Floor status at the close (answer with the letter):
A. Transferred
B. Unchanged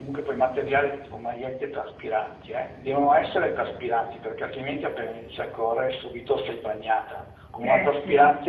B